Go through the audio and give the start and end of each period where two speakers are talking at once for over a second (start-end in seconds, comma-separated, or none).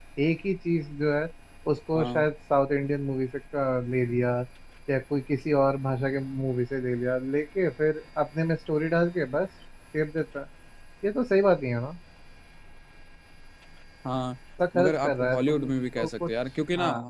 14.7-16.3